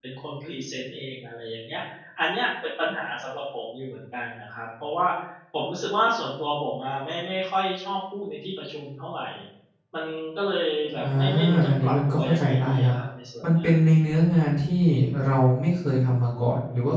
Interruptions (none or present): present